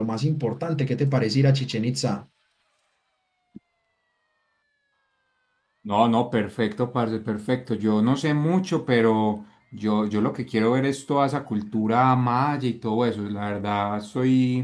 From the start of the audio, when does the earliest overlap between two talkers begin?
none

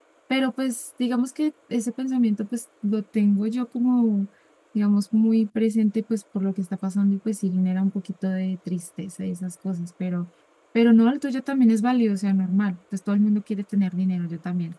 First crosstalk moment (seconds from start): none

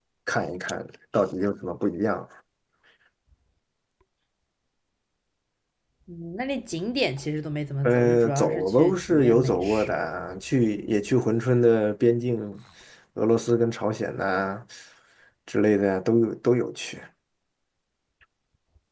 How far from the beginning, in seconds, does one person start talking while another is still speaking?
8 s

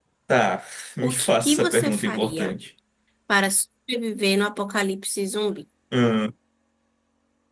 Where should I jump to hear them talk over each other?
1 s

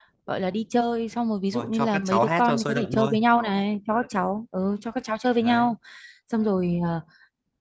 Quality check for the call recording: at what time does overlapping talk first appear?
2 s

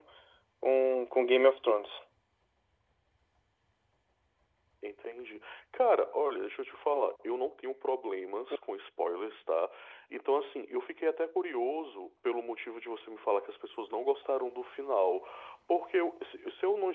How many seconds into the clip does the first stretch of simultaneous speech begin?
none

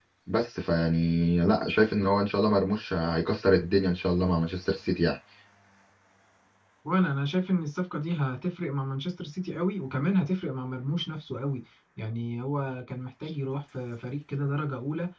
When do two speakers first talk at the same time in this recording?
none

